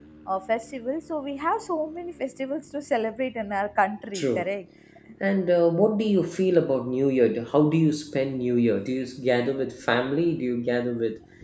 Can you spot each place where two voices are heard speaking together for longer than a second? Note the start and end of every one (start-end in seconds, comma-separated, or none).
none